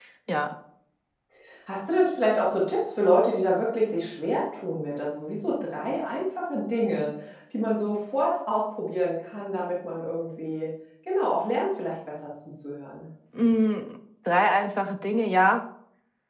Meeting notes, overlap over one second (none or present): none